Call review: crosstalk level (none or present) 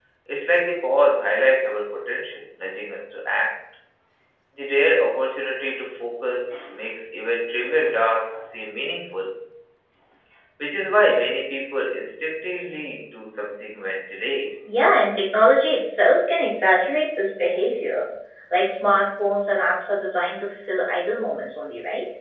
none